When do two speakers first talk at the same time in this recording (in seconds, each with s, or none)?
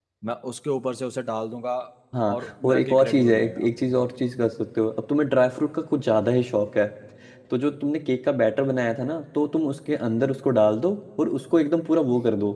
2.4 s